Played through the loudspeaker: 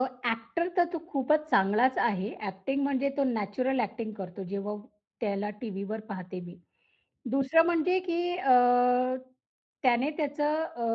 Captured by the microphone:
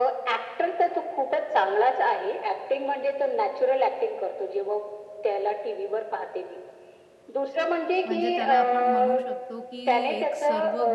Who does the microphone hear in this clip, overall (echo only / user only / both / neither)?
both